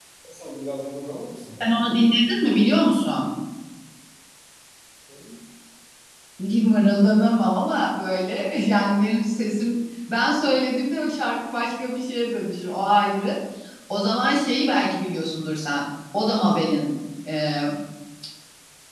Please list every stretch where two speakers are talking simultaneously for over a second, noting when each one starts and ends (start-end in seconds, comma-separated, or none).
none